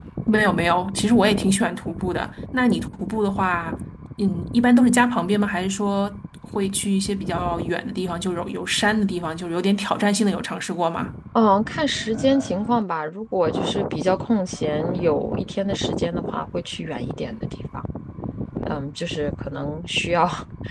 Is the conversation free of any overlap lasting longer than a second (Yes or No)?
Yes